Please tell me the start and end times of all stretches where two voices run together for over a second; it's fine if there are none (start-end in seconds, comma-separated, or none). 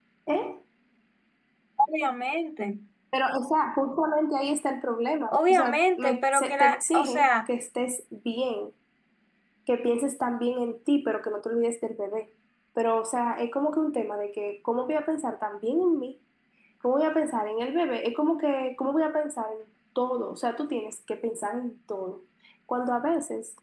5.3-7.5